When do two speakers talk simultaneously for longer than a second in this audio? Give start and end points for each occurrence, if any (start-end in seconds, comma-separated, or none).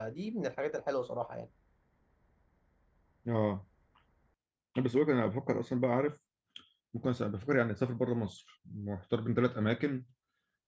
none